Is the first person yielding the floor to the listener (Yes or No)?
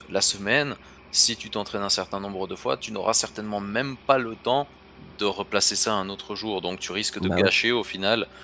No